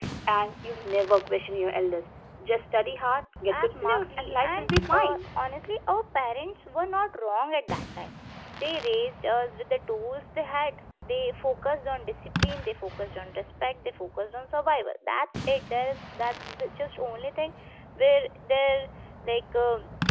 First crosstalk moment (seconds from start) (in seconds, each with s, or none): 3.5 s